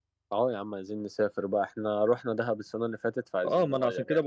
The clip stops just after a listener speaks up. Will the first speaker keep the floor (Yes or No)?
No